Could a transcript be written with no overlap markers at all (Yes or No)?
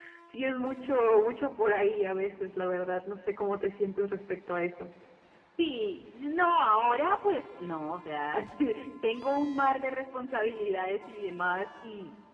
Yes